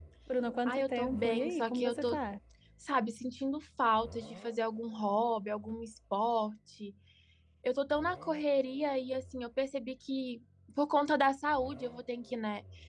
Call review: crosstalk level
present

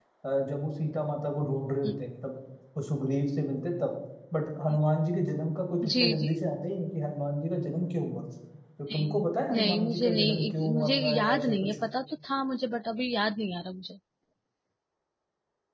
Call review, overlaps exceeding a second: present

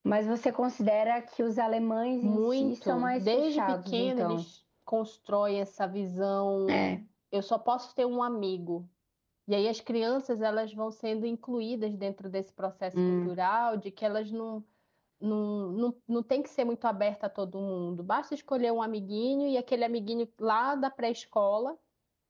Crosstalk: present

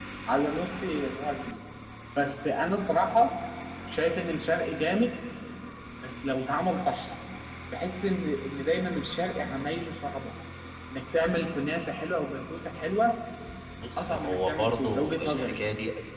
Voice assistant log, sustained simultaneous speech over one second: present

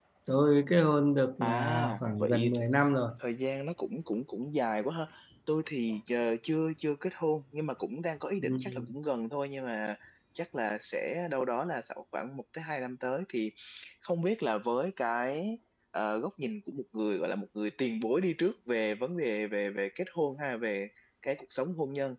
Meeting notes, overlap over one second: present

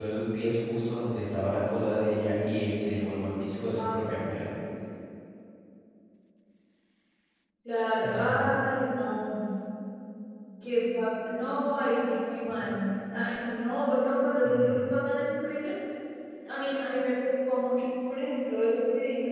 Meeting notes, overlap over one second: none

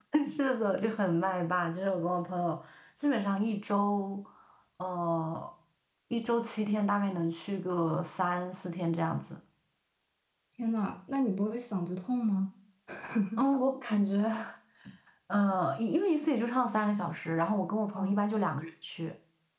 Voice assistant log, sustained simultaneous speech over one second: none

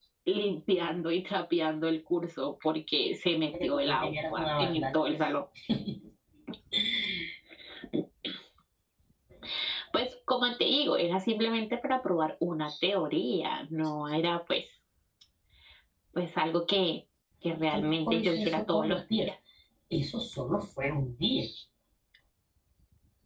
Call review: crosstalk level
present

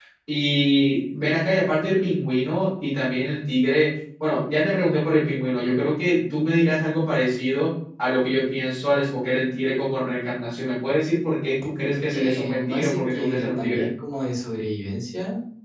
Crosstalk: present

